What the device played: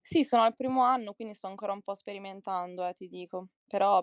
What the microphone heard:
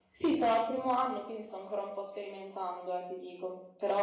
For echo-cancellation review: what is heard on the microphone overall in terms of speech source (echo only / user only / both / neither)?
echo only